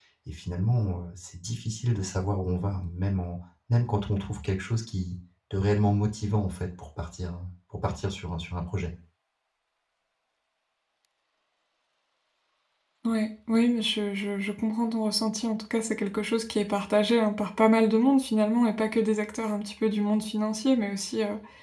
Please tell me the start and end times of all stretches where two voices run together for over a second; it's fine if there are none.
none

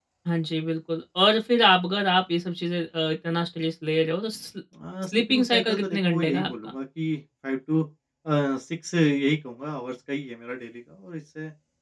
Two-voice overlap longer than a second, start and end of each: 5.1-6.5

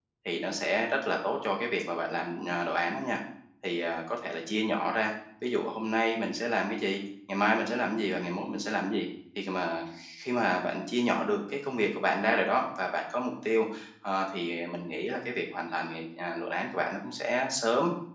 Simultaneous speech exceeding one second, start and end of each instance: none

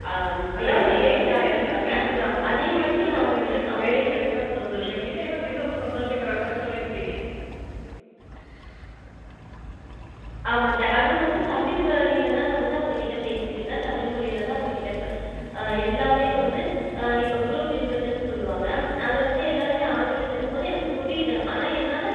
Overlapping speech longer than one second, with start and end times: 0.6-2.0, 2.5-4.2

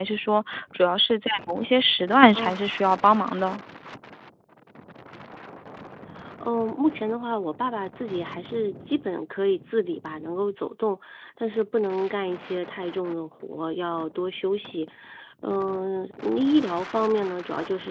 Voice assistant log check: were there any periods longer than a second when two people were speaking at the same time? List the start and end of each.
none

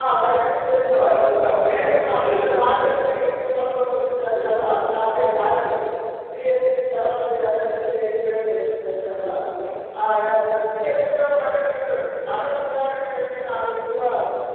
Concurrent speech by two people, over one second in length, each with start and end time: 1.7-3.1

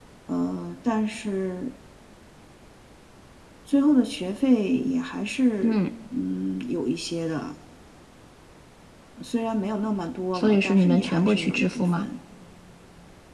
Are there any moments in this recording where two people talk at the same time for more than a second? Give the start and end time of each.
10.3-12.1

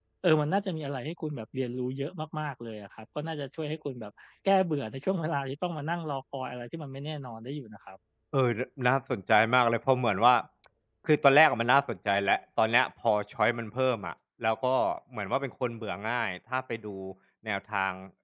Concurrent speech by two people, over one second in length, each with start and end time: none

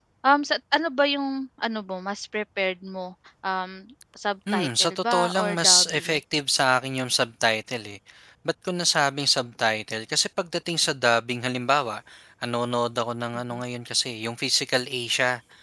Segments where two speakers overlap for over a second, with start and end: 4.5-6.2

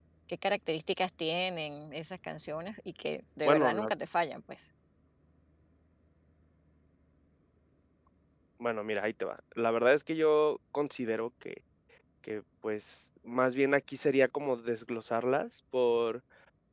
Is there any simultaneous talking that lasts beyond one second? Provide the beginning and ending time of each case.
none

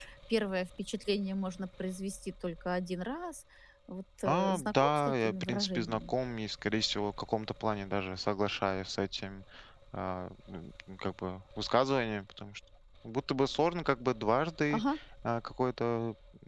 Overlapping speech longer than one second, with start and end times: 4.2-6.1

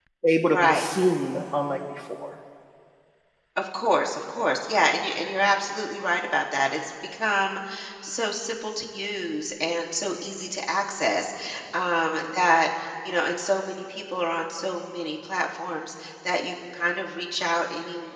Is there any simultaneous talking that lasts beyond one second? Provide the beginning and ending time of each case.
none

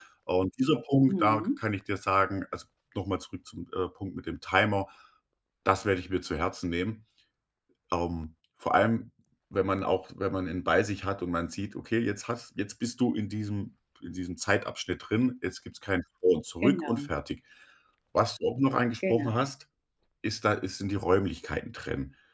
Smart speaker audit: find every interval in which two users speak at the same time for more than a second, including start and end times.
none

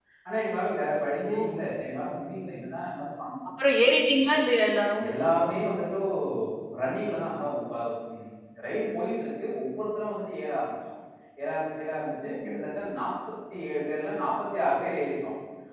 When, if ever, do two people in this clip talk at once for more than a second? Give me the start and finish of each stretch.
none

